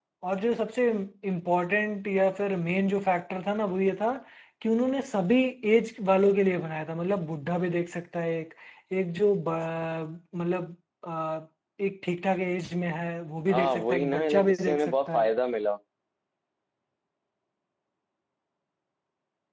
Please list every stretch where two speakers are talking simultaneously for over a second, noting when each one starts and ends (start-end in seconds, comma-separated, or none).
13.5-15.3